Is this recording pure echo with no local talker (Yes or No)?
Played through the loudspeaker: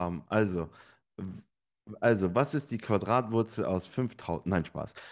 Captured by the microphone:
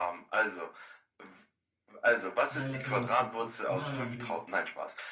No